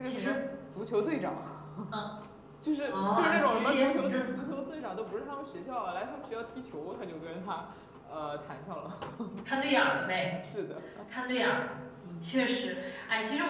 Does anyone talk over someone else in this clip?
Yes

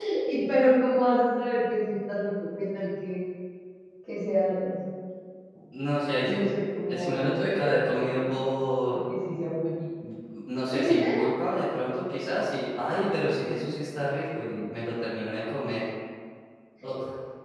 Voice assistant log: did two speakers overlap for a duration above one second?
Yes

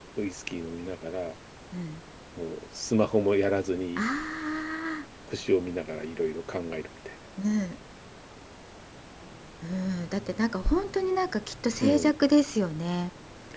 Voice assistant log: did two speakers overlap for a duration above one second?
No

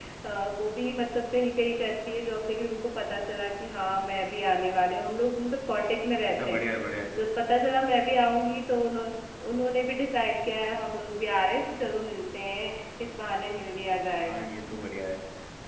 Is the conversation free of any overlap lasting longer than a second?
Yes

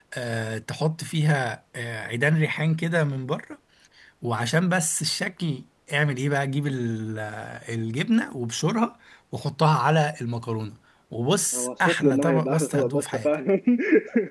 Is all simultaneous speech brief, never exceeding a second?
No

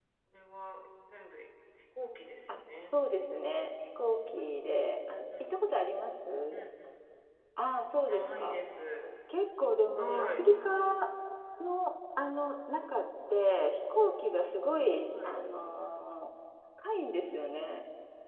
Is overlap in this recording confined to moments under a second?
Yes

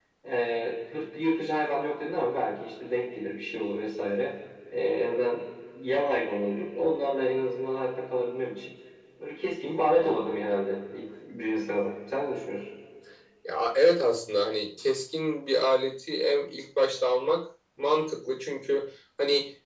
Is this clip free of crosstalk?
Yes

